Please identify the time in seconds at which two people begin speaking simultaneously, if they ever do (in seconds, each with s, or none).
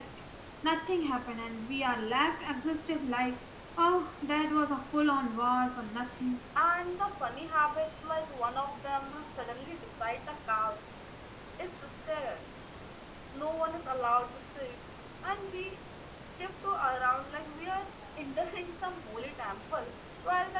none